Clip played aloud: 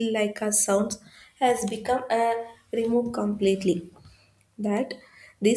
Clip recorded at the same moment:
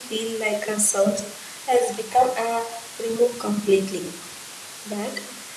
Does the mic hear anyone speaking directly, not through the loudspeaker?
No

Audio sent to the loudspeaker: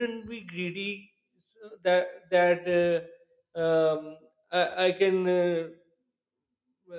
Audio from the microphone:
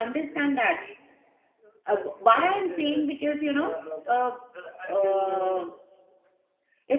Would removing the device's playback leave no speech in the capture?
No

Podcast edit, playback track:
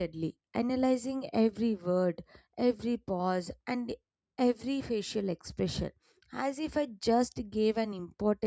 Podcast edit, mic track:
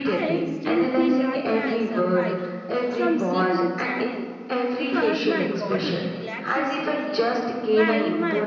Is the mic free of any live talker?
No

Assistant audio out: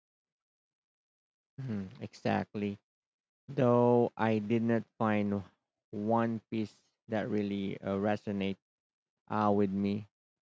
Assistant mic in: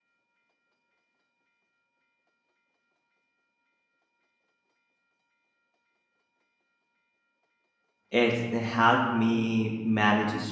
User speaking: Yes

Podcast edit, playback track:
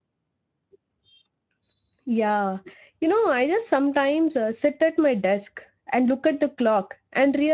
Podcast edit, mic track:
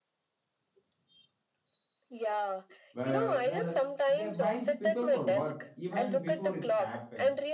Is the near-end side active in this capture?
Yes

